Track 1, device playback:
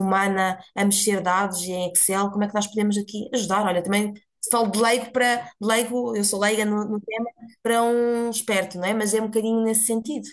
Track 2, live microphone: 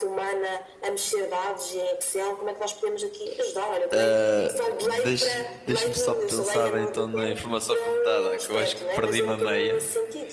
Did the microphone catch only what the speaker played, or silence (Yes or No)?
No